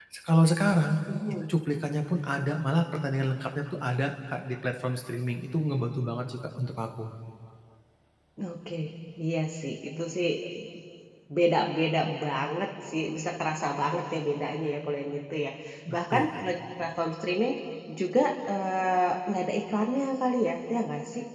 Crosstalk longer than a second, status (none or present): none